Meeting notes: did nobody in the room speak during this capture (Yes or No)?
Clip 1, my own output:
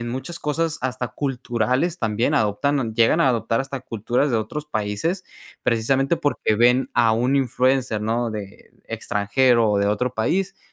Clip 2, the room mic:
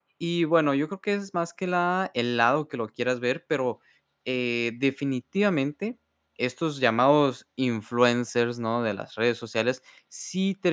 No